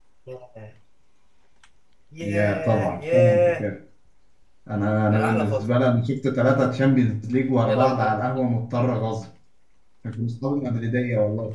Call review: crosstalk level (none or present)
present